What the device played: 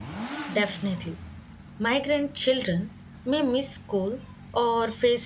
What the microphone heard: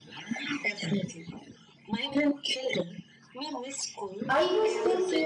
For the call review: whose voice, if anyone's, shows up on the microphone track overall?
both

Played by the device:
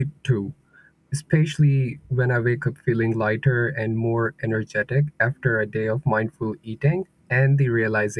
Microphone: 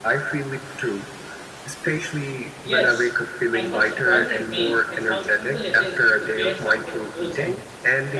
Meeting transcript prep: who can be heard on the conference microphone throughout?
both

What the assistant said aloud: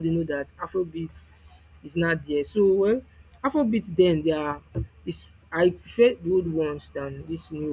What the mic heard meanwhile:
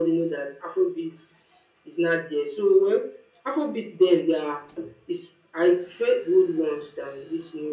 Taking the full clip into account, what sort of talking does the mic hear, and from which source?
echo only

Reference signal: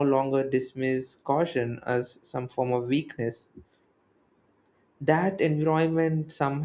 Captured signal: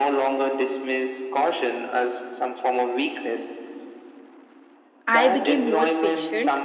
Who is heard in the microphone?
both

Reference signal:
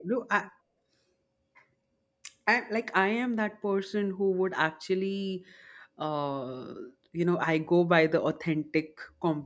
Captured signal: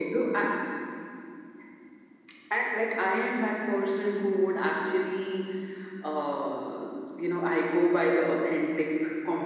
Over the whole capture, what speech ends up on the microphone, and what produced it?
echo only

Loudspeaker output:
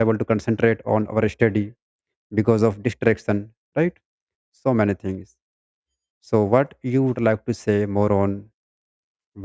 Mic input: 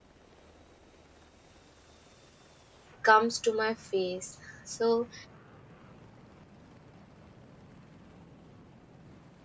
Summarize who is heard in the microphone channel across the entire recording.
user only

